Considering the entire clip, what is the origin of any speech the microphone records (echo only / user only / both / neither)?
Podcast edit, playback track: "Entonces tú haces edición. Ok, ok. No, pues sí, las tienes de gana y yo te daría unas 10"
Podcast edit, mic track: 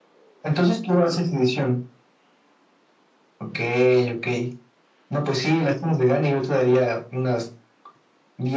echo only